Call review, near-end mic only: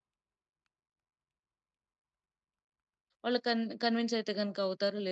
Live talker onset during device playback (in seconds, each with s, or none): 3.2 s